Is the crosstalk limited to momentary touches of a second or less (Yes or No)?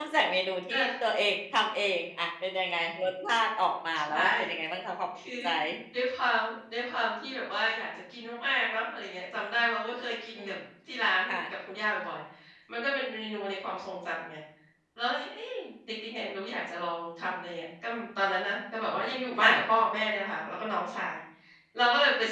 Yes